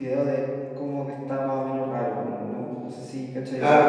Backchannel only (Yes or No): No